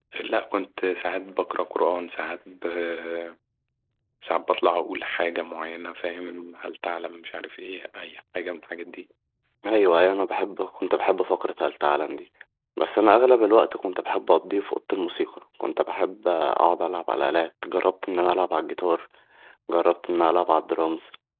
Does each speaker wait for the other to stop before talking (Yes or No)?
Yes